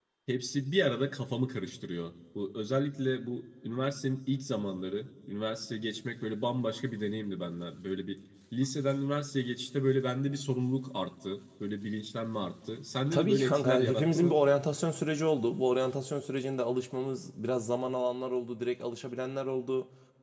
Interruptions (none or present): present